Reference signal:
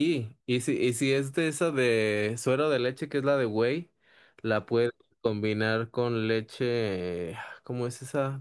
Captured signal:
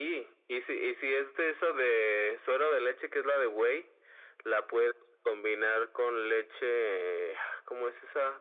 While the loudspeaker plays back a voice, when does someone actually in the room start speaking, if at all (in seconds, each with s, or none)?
none